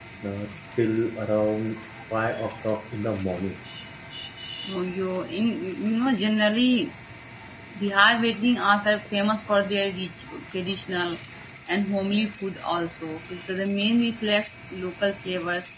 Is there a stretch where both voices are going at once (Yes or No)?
No